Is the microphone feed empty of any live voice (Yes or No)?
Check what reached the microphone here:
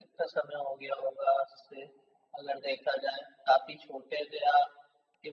Yes